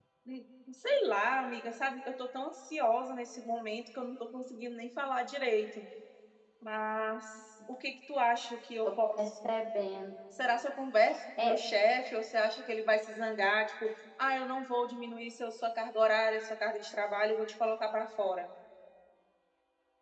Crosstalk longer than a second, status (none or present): none